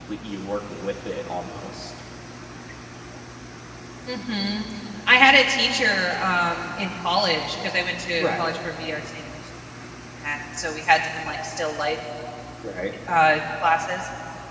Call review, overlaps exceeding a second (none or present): none